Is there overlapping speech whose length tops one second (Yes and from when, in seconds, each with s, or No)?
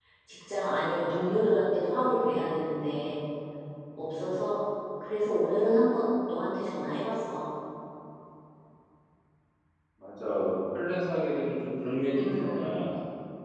No